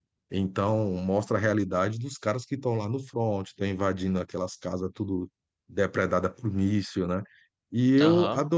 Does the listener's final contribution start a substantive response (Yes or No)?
No